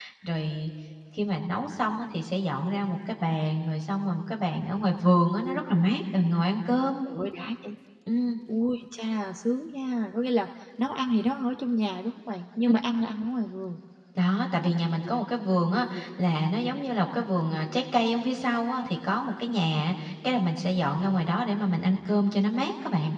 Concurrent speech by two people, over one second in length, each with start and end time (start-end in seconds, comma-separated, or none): none